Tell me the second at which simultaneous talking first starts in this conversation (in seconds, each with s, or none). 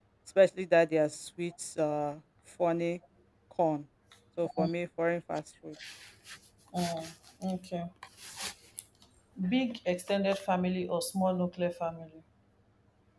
none